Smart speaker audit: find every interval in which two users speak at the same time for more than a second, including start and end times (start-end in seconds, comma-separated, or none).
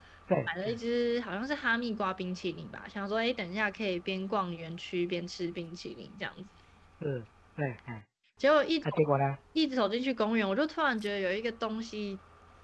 none